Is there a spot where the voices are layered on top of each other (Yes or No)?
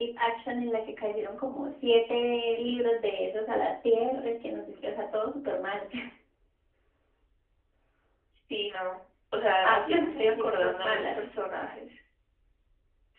Yes